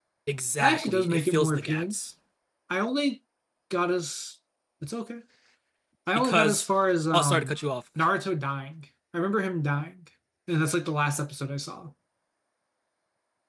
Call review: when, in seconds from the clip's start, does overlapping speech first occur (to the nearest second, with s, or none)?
1 s